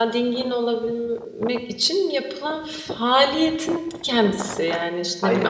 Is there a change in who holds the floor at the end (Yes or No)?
No